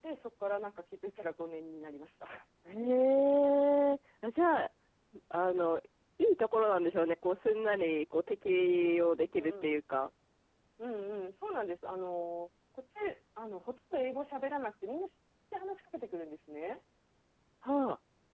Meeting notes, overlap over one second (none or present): none